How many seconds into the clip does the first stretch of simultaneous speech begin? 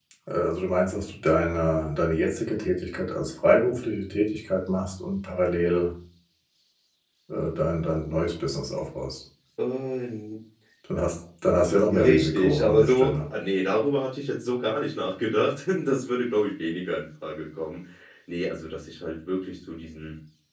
11.9 s

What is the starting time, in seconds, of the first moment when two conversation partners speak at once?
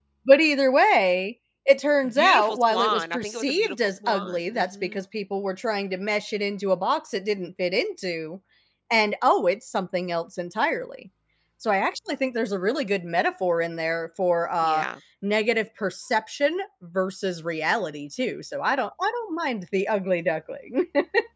2.0 s

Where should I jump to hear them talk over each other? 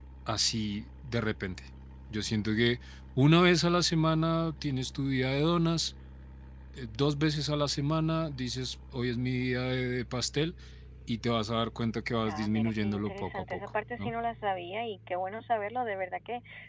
12.3 s

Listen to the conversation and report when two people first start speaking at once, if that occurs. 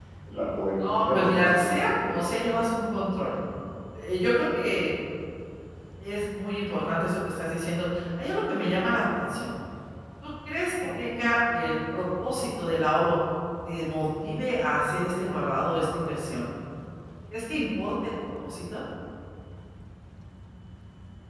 0.8 s

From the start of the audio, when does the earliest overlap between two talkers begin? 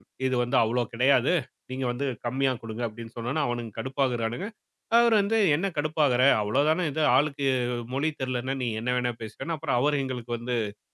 none

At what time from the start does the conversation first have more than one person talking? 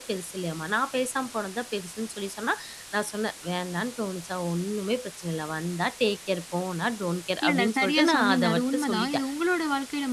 7.4 s

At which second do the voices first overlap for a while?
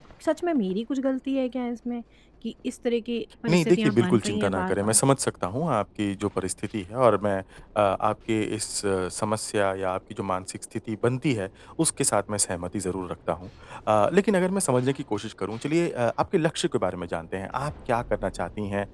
3.5 s

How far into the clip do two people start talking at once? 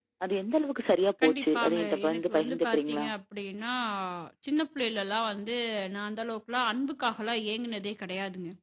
1.2 s

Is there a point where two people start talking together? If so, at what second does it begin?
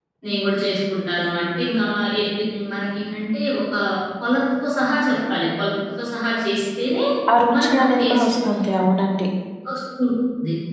7.5 s

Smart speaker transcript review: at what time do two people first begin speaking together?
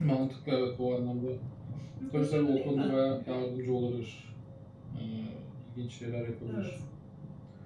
2.1 s

